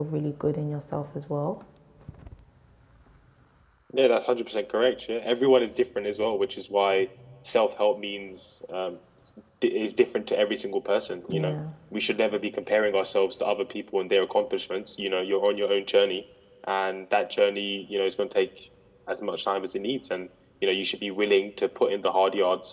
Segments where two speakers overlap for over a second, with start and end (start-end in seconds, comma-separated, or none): none